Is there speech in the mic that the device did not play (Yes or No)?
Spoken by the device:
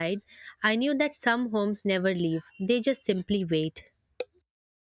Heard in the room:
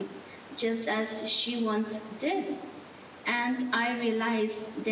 Yes